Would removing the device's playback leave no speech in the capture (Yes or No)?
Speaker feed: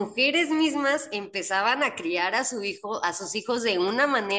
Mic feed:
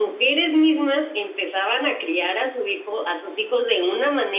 Yes